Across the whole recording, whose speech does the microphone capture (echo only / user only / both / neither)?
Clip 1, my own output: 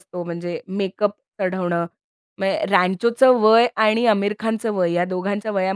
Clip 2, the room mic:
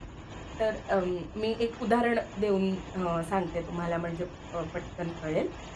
user only